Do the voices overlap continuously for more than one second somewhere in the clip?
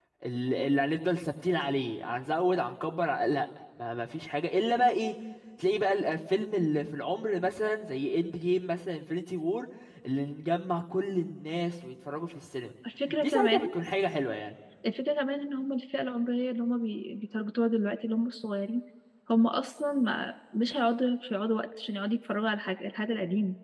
No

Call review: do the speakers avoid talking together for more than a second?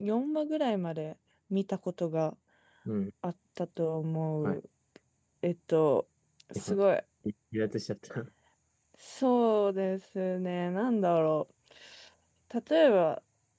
Yes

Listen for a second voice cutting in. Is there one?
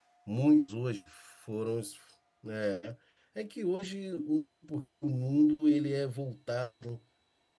No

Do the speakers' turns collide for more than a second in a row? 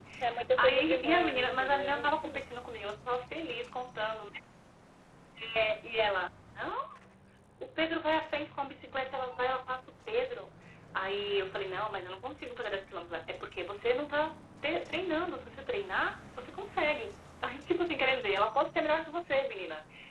Yes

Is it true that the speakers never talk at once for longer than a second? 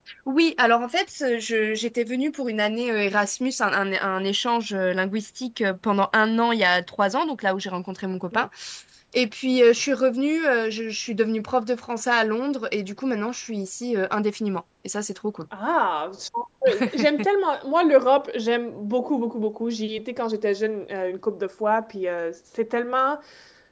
Yes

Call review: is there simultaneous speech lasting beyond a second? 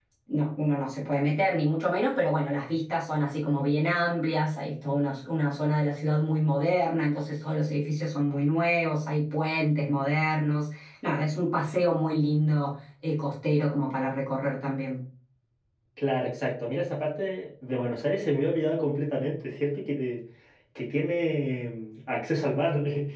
No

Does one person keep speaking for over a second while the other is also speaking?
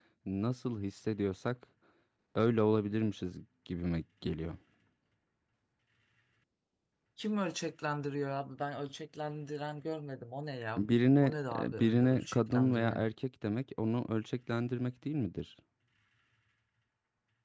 Yes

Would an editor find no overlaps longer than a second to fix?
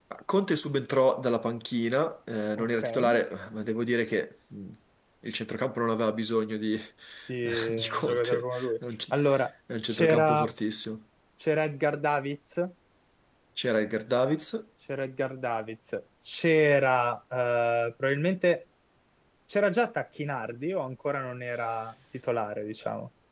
No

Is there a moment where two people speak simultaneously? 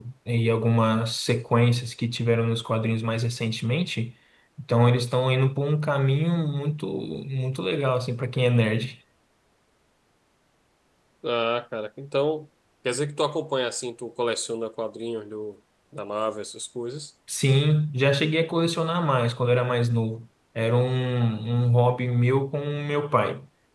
No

